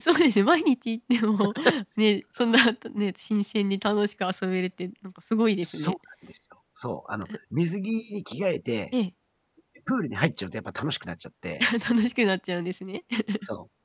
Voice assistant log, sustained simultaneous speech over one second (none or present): none